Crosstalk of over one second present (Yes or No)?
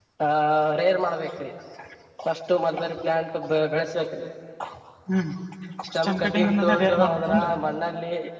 Yes